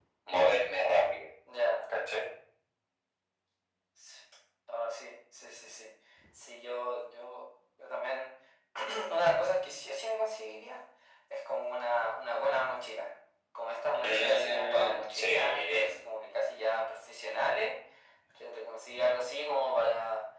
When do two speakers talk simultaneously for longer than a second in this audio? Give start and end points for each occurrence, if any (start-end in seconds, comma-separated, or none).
14.0-15.9